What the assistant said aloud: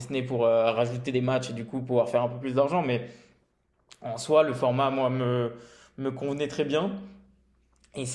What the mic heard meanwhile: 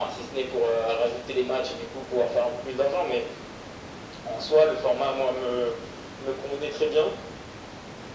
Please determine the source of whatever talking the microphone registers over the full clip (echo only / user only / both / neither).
echo only